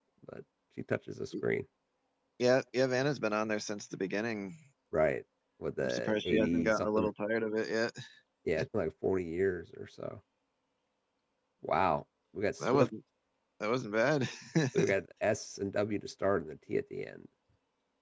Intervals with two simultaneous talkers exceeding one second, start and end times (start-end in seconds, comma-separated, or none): 5.8-7.1